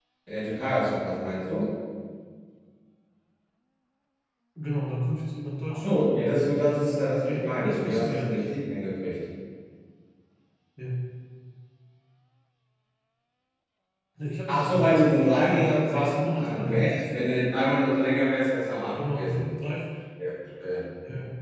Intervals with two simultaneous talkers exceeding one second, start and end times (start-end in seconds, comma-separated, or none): 5.8-8.5, 14.5-17.0